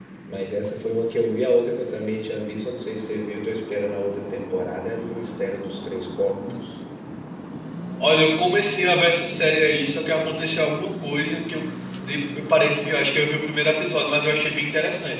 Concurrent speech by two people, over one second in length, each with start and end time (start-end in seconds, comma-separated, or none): none